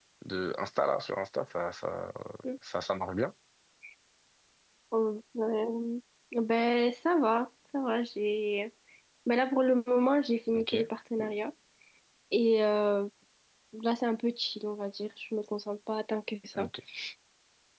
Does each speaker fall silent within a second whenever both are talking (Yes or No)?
Yes